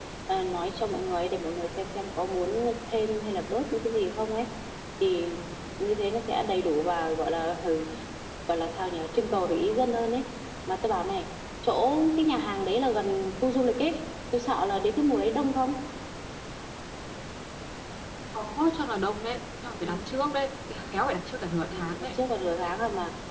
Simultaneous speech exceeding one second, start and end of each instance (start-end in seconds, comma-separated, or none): none